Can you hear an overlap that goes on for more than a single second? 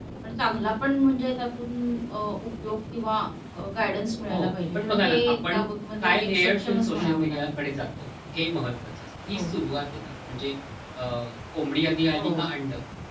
Yes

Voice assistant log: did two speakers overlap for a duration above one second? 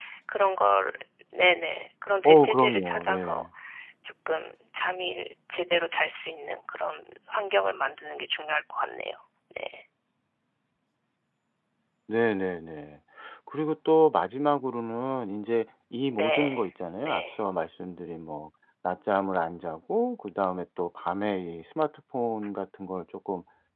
Yes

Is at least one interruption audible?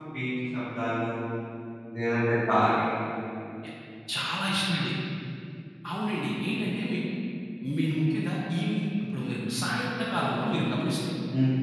No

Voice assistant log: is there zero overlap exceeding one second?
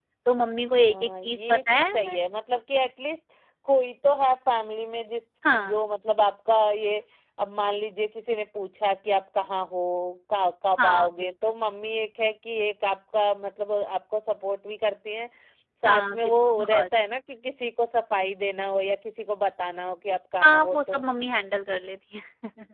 No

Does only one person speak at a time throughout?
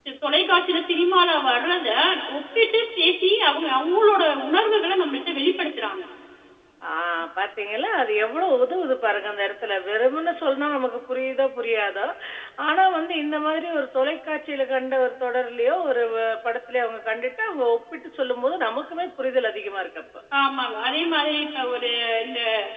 Yes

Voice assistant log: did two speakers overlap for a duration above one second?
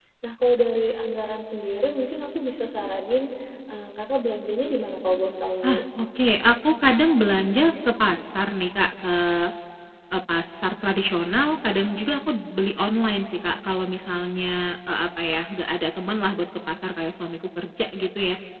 No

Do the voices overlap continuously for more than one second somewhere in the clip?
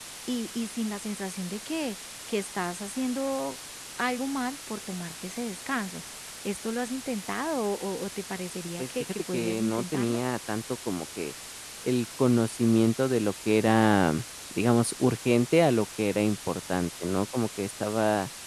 Yes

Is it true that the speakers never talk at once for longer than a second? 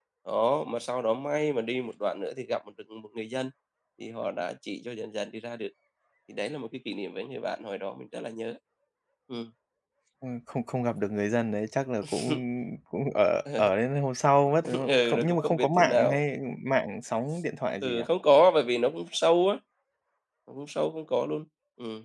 No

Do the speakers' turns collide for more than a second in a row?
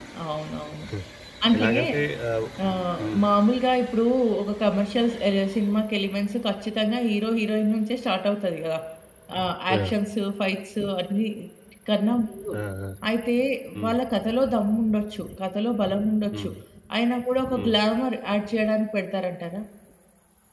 No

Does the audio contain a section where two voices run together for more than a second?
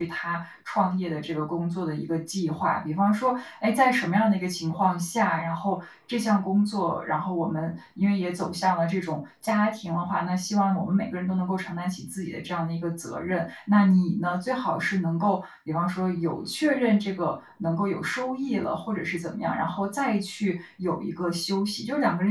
No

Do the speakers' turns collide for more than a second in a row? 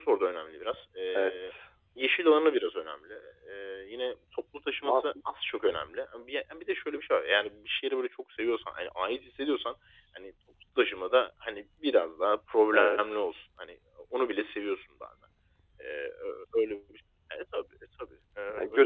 No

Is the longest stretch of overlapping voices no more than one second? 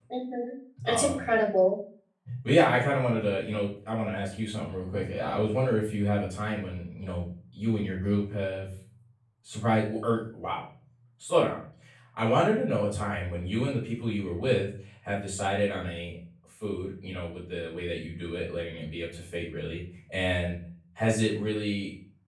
Yes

